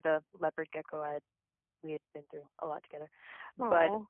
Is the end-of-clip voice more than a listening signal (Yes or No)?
No